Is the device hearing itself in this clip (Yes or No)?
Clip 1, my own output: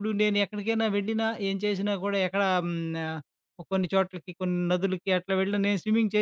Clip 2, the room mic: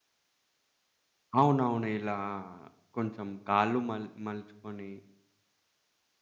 No